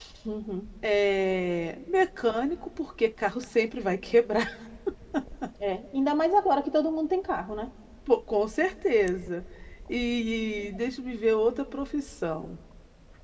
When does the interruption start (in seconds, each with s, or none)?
none